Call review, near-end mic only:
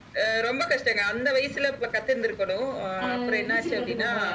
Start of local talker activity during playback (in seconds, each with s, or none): 3.0 s